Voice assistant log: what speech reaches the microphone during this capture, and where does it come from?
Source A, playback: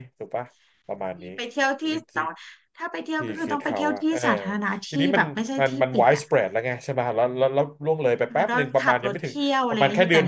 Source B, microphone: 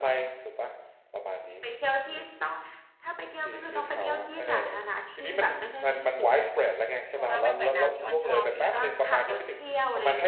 both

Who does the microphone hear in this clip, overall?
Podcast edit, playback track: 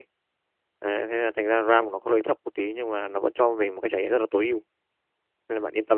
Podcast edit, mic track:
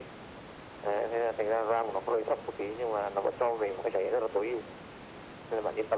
echo only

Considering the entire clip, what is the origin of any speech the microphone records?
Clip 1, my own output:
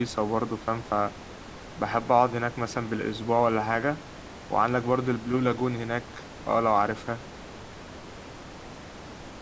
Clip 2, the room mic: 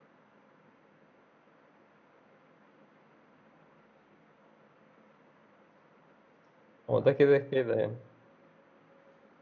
user only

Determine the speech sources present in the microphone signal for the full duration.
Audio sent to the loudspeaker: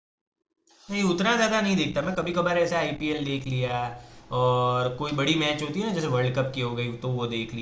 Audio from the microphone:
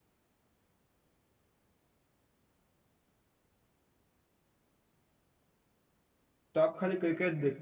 user only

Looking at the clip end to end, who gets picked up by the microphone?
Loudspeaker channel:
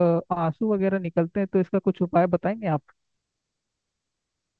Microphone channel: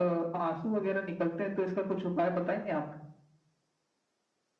echo only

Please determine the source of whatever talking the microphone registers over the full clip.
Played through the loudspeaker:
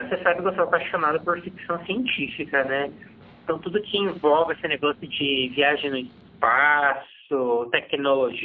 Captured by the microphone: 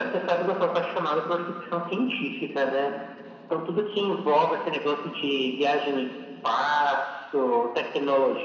echo only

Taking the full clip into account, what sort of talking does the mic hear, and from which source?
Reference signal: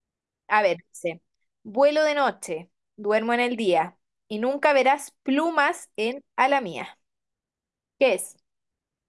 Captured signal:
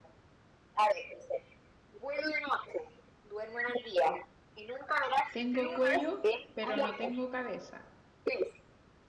both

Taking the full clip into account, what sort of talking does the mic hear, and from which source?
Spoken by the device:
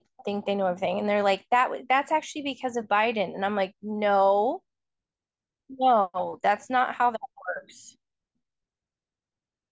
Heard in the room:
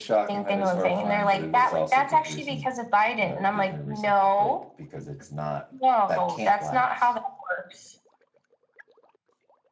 both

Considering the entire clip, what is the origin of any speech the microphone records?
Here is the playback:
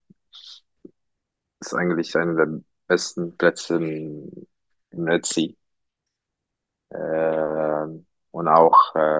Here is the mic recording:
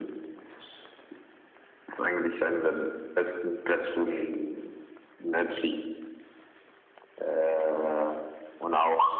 echo only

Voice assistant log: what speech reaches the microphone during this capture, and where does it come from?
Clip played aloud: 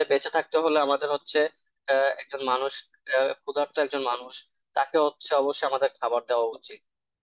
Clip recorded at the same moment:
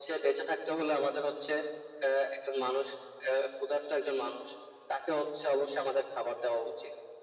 echo only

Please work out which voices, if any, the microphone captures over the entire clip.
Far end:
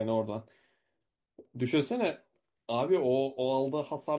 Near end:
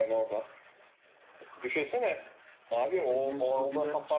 both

